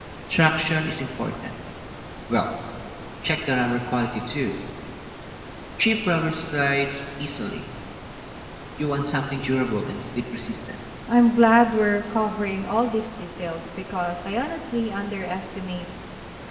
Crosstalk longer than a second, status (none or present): none